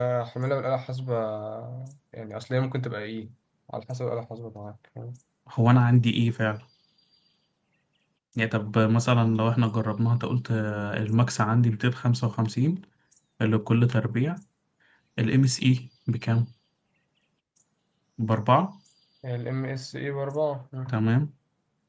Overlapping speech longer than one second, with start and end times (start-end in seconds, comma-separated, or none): none